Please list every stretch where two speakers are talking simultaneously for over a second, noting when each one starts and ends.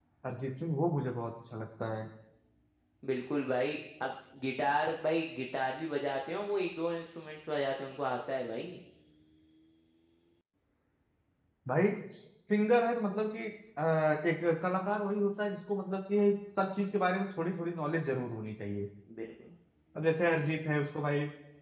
none

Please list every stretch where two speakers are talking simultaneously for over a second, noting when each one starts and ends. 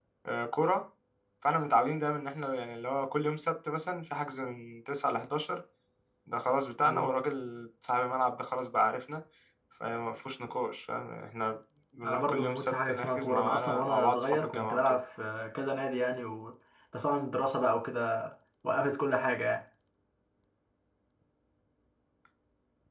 12.0-15.0

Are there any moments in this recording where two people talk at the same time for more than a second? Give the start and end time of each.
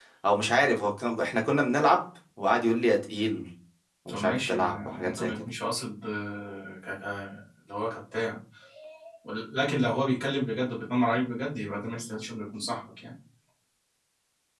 4.1-5.3

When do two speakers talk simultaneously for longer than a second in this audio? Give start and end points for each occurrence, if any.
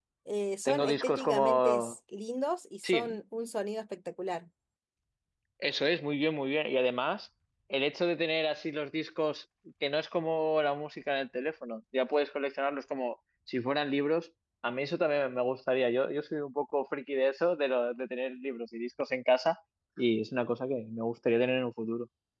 0.6-1.9

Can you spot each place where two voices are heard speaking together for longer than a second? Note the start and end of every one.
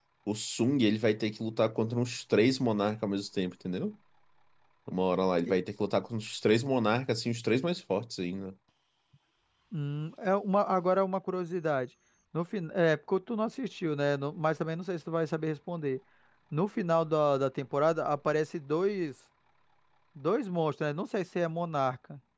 none

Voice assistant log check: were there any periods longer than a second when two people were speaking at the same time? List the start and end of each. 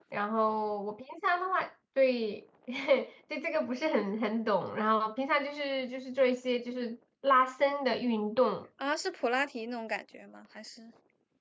none

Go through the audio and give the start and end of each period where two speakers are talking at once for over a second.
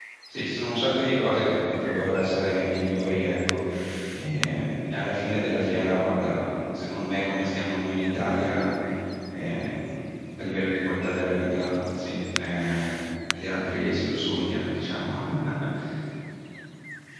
none

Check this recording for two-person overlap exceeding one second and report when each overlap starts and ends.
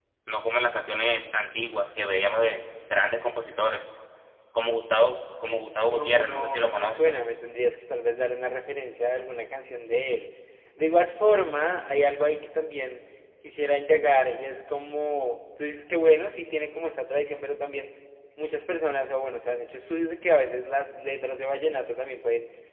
5.7-7.1

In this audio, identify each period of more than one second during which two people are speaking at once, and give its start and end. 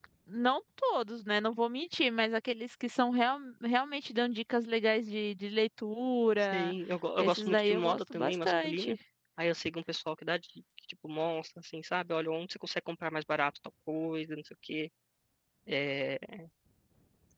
7.2-8.9

